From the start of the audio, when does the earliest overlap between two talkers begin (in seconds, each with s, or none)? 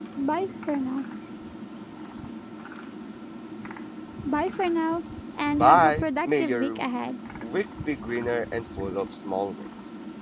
5.6 s